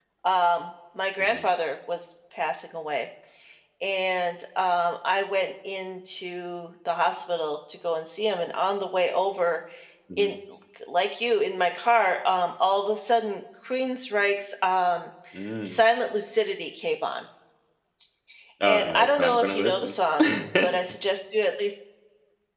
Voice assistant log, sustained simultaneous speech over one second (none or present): present